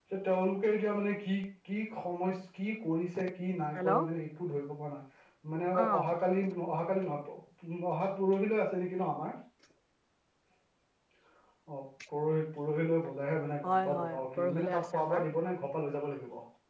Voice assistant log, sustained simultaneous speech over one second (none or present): present